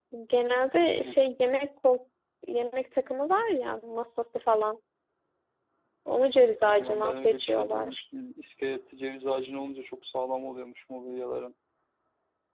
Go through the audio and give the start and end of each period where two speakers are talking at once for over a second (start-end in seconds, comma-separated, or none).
6.6-8.0